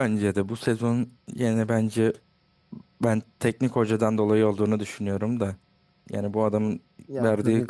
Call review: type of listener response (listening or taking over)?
taking over